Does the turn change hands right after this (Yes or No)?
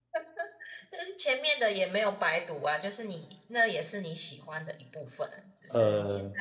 No